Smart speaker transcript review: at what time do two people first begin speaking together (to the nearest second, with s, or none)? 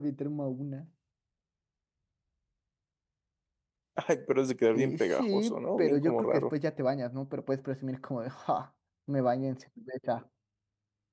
5 s